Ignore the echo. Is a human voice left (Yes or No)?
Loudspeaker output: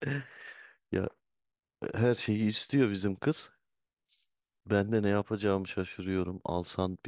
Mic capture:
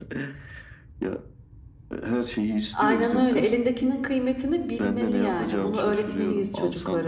Yes